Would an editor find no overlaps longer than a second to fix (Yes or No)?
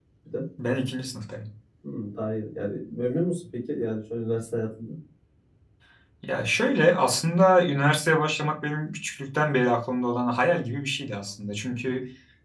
Yes